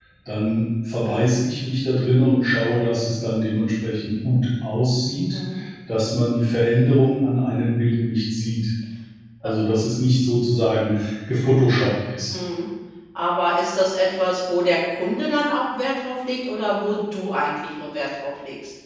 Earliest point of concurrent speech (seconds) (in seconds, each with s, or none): none